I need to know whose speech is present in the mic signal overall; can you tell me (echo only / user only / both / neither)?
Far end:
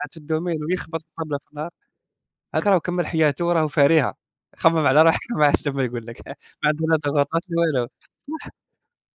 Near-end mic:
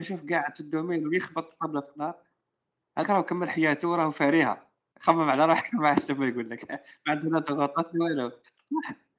echo only